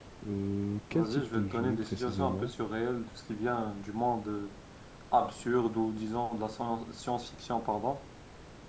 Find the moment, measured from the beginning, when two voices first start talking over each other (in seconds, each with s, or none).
0.9 s